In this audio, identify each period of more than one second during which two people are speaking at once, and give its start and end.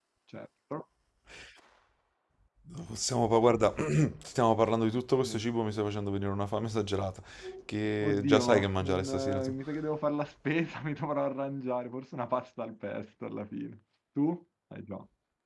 8.0-9.5

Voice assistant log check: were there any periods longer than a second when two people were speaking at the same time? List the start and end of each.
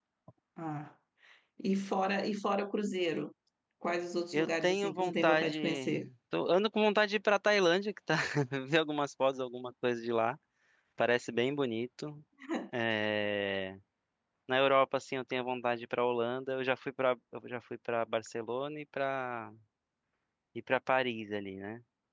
4.3-6.0

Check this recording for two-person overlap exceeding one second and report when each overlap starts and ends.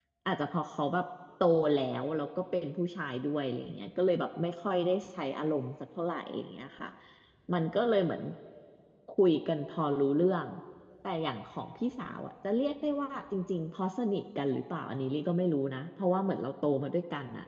none

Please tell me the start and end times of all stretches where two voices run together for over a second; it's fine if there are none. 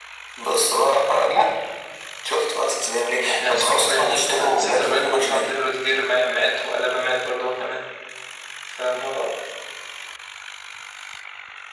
3.3-5.5

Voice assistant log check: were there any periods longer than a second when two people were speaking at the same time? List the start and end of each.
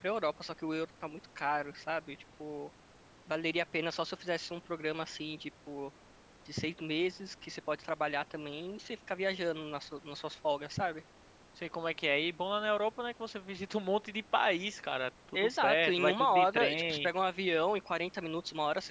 15.3-17.1

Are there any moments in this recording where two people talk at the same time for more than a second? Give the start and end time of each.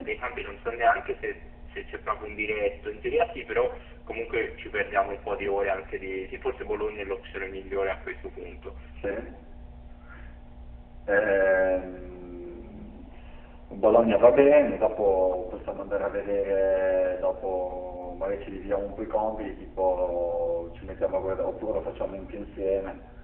none

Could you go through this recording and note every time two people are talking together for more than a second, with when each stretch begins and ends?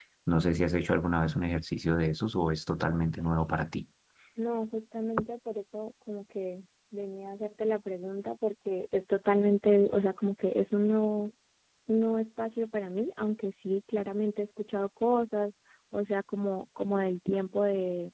none

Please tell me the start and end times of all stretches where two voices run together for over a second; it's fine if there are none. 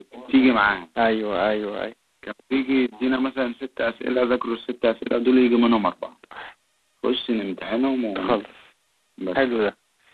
none

